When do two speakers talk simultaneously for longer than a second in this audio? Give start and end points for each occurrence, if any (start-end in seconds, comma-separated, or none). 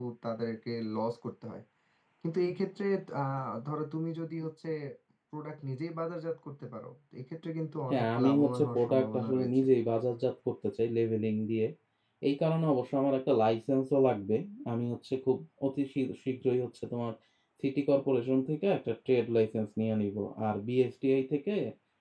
7.9-9.5